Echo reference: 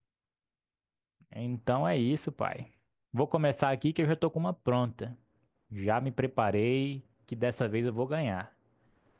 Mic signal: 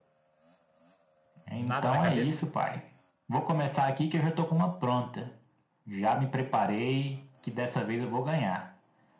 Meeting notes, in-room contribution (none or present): present